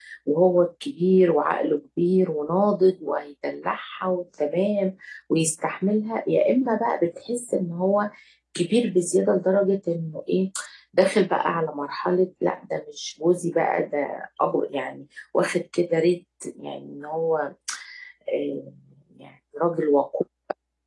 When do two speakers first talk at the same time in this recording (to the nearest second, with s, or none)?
none